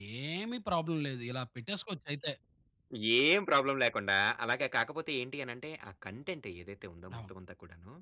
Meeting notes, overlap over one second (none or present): none